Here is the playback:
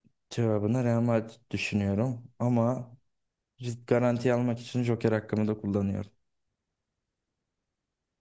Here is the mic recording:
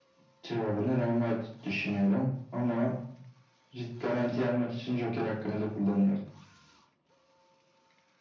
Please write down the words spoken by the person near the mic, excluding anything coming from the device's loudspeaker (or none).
none